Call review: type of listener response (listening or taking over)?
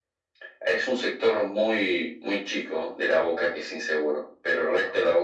listening